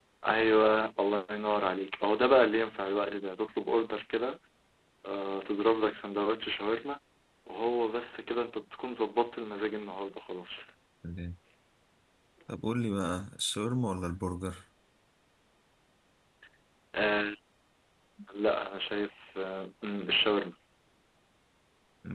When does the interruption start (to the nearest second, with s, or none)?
none